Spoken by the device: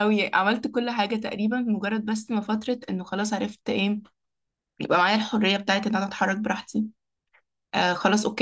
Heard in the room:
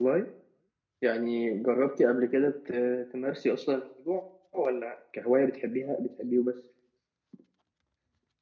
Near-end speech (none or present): present